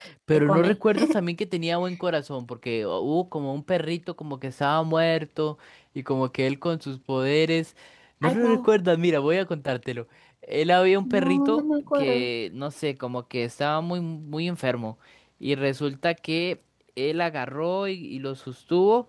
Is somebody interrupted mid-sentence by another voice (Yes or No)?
Yes